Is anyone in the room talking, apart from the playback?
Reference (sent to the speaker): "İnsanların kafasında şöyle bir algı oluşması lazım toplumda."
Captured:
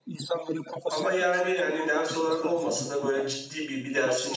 Yes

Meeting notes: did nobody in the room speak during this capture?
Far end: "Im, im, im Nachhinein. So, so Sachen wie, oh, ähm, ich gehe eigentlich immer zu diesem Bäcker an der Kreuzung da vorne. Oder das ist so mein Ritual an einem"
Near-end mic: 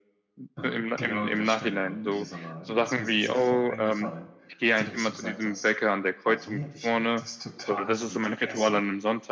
No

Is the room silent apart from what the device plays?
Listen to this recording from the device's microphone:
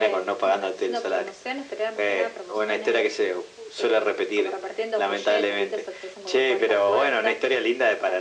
Yes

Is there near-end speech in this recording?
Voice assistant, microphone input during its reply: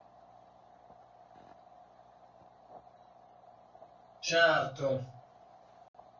Yes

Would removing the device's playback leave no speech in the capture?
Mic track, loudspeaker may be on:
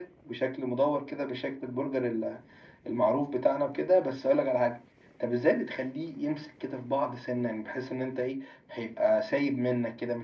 Yes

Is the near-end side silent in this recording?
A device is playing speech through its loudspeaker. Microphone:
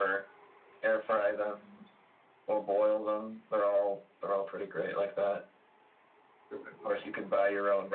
No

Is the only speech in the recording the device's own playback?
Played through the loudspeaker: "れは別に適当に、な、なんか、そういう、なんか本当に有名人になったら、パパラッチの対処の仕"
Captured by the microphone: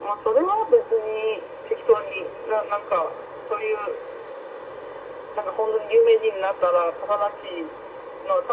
Yes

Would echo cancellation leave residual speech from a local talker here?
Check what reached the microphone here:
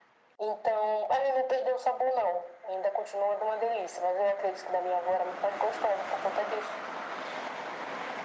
No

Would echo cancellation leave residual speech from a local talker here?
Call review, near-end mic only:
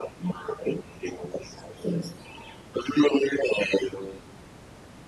No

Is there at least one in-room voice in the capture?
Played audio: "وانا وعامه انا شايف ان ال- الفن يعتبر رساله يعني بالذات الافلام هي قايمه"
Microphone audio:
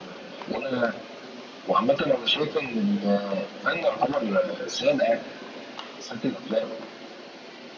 No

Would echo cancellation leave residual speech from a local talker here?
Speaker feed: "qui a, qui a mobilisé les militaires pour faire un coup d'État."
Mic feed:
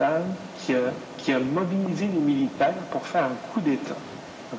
No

